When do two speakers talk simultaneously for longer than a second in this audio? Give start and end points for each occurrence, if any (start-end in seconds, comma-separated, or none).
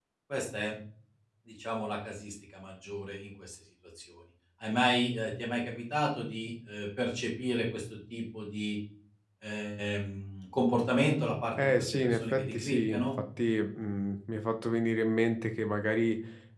11.6-13.0